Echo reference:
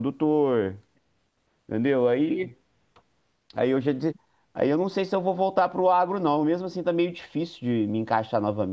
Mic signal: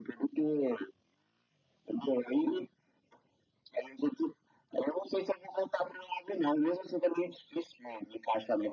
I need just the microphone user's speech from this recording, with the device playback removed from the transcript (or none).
none